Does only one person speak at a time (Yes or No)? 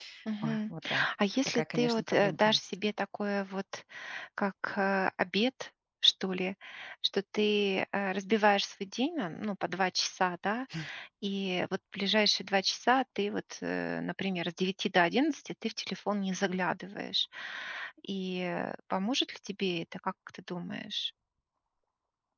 No